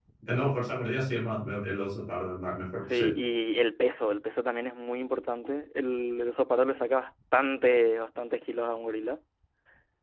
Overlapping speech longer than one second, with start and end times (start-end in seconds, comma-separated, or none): none